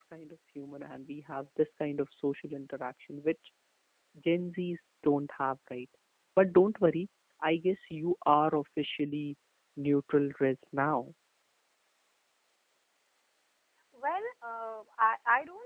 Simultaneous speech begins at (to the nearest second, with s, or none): none